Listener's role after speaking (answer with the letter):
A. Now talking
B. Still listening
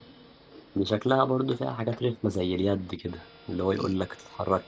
B